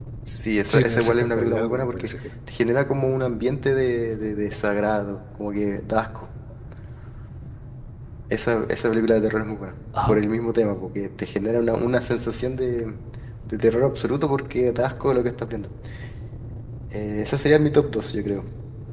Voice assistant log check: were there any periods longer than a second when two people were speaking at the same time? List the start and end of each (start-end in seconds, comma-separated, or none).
0.7-2.1